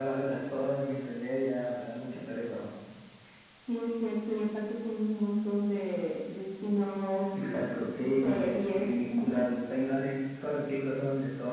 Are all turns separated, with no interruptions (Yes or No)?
No